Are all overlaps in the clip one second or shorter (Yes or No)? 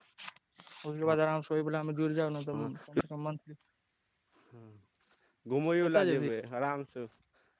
Yes